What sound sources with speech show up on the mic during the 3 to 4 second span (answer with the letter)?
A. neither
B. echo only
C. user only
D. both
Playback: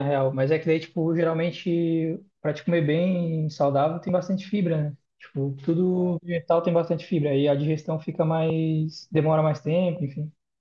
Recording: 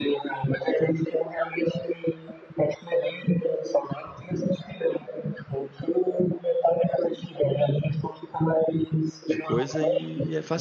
B